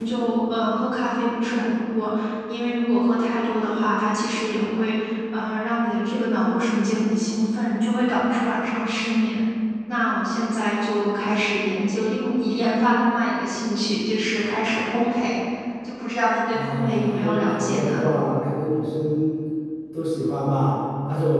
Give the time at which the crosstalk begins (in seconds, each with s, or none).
16.5 s